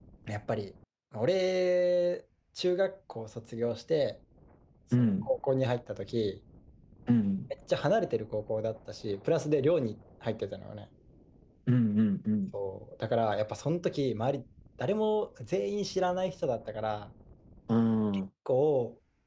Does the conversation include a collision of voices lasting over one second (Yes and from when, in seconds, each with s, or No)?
No